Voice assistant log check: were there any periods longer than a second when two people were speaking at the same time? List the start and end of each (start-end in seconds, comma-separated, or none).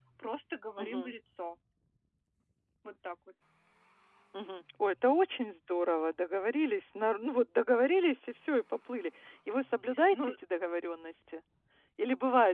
none